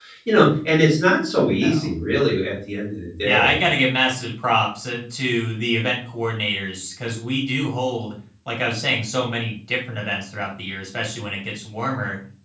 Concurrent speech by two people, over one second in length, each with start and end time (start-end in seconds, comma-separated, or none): none